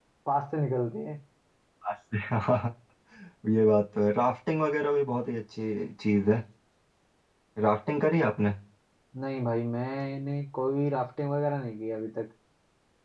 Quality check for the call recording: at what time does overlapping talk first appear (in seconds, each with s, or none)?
none